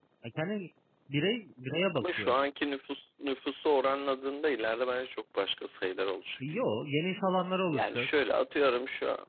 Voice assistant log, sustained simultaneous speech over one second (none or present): none